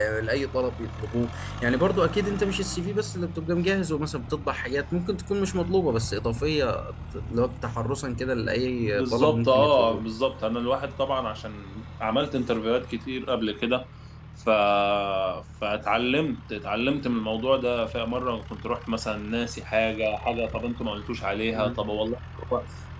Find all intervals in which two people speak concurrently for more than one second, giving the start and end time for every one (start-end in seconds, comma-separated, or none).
8.8-10.0